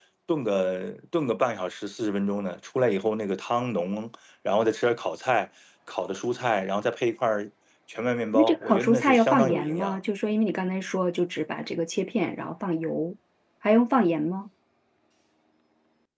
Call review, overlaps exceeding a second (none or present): present